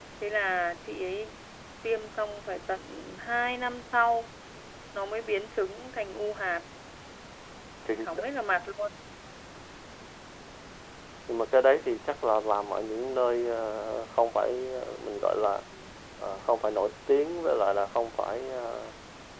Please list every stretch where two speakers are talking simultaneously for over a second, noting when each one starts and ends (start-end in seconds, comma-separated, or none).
none